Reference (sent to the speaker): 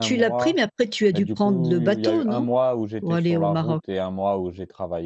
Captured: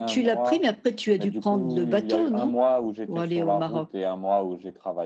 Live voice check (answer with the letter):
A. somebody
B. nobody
B